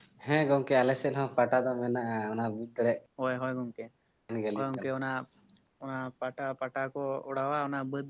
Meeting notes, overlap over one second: none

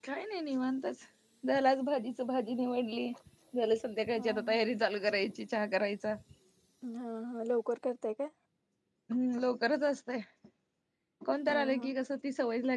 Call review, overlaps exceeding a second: none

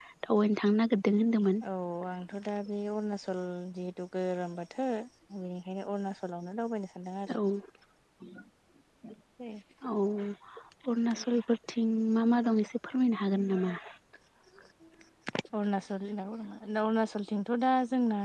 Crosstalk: none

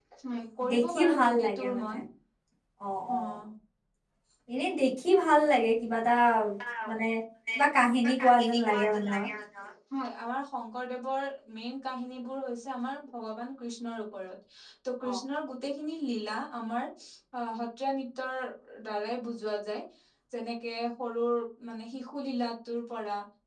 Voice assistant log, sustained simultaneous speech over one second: present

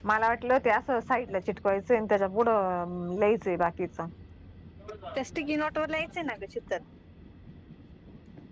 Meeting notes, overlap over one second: none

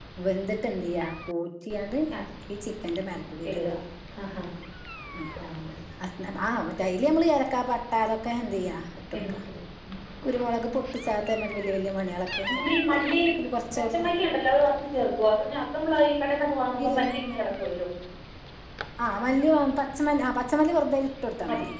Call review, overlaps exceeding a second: none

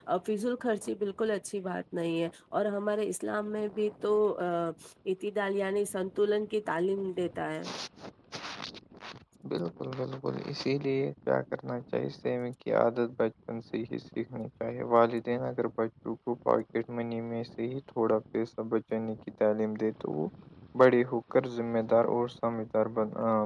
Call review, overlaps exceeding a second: none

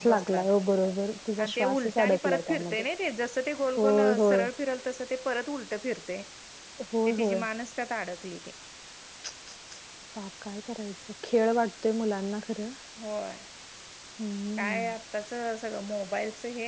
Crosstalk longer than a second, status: present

